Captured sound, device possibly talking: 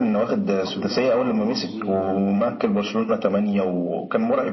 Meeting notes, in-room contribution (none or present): present